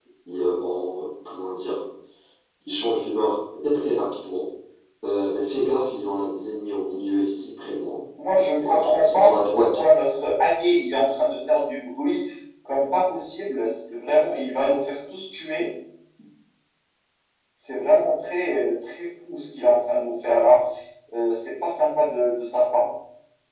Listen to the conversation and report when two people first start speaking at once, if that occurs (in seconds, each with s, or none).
8.6 s